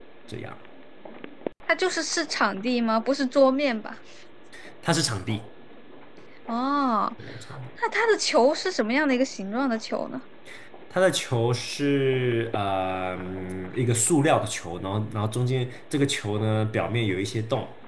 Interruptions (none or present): none